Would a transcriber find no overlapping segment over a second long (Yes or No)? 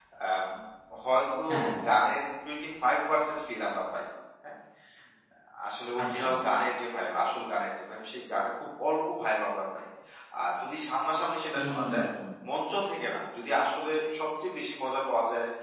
Yes